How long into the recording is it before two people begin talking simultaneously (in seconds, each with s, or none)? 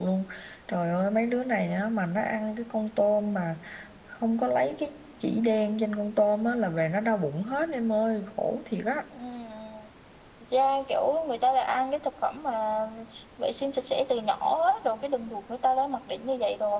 none